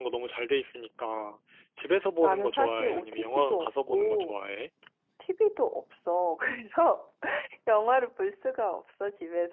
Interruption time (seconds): 2.2 s

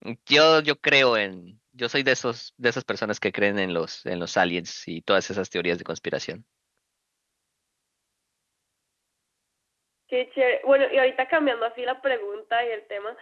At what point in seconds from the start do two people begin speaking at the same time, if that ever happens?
none

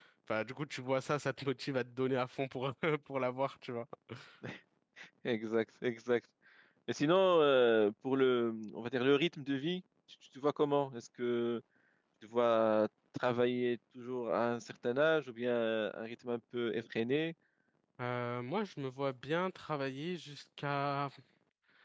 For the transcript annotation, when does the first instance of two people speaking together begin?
none

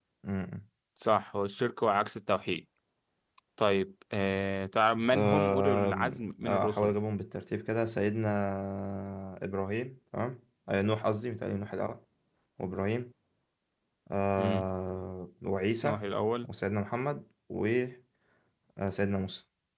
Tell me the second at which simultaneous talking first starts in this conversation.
5.1 s

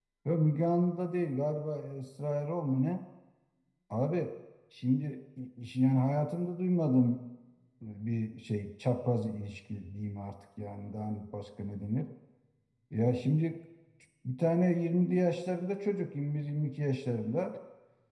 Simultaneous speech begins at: none

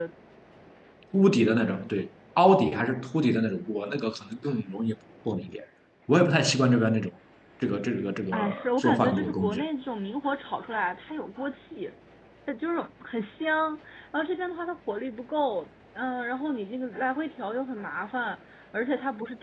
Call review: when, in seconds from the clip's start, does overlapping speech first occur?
8.3 s

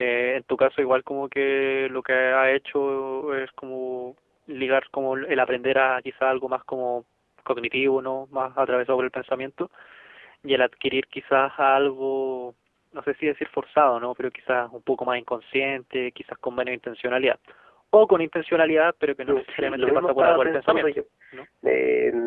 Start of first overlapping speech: 19.3 s

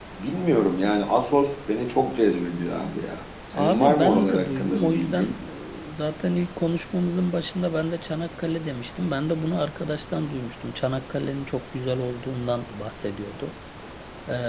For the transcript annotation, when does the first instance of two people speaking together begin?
3.5 s

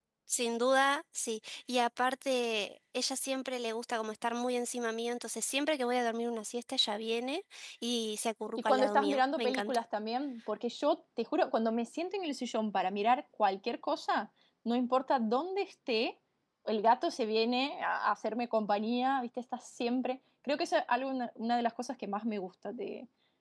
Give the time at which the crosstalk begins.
8.6 s

